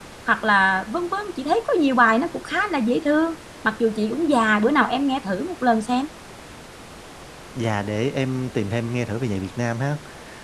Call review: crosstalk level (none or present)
none